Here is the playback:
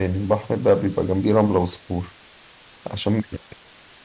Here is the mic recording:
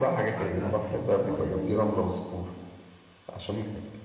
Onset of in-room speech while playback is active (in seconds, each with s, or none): 0.4 s